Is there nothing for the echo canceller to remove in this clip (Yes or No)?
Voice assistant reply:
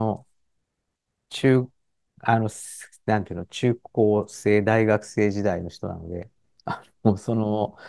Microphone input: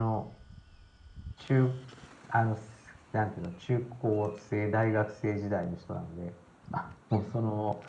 No